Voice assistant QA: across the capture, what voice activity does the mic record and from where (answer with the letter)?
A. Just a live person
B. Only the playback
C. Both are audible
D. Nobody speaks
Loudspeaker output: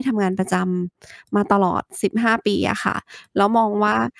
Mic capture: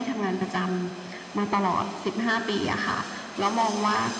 B